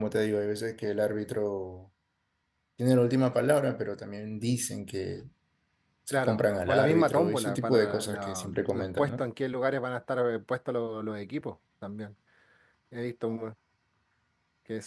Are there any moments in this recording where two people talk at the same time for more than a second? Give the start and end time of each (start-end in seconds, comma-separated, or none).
6.1-9.2